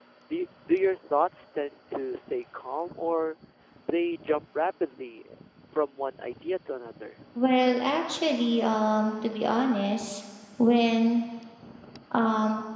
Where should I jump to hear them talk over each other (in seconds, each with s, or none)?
none